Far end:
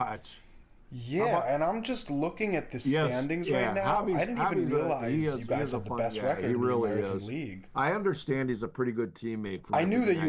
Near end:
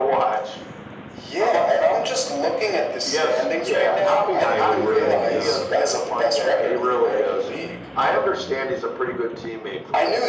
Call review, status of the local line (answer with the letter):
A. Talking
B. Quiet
A